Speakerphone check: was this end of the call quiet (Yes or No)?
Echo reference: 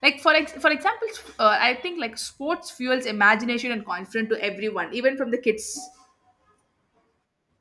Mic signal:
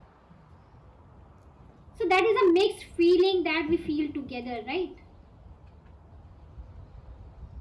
No